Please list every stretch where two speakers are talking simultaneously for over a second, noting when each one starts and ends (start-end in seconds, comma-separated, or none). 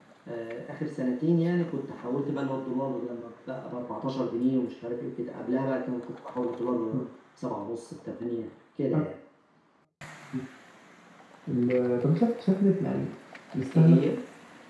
none